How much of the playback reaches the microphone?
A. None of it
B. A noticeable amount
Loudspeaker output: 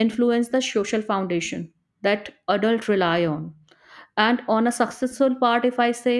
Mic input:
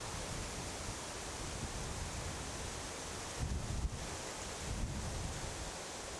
A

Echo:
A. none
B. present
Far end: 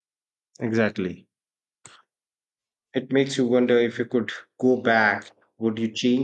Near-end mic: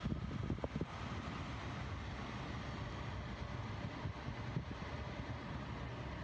A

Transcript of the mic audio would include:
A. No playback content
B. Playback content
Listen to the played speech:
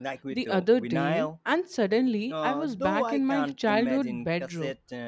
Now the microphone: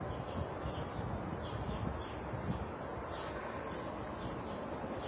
A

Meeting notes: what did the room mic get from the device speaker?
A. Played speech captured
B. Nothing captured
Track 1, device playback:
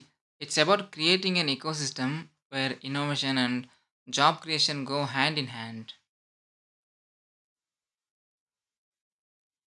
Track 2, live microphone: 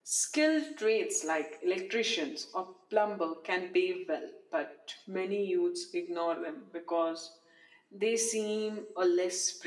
B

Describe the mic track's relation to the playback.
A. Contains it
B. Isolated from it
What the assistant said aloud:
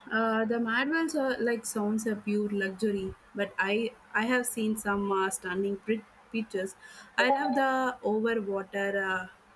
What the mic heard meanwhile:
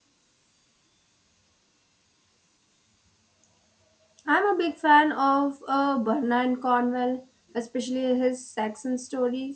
B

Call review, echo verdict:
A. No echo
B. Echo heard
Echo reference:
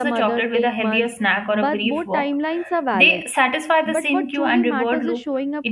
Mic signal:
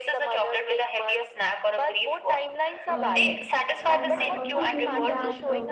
B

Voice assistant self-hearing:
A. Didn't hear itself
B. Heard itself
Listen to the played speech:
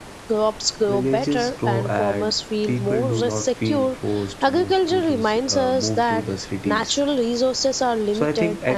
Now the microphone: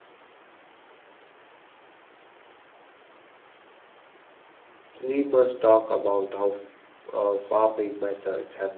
A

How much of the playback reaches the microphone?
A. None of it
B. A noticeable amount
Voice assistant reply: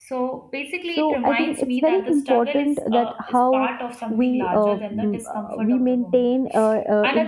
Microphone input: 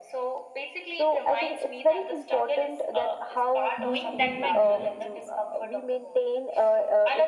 B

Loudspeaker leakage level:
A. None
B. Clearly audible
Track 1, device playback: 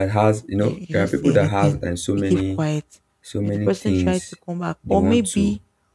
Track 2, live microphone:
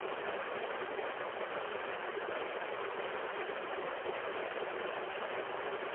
A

